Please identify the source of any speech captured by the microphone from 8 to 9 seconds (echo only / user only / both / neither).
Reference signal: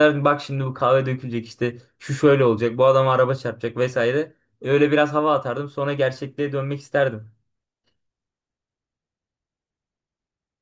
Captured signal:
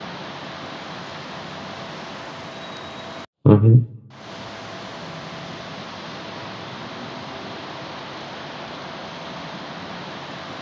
neither